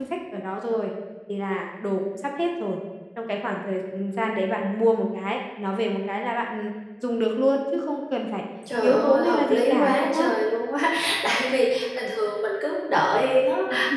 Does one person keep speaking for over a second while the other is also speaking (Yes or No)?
Yes